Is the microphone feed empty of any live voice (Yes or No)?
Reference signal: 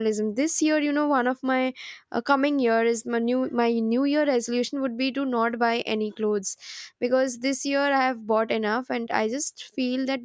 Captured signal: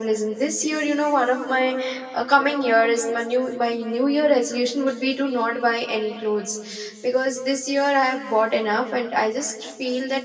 Yes